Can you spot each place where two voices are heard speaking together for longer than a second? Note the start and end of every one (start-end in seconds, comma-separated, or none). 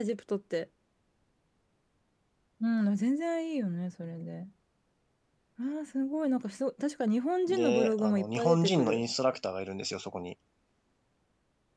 7.5-9.0